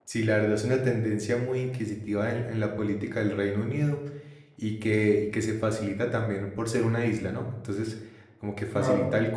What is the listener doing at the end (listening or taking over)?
listening